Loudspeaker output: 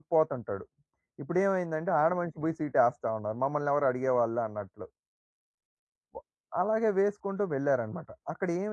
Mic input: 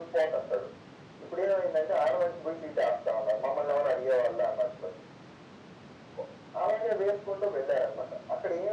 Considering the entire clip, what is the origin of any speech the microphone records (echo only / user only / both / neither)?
echo only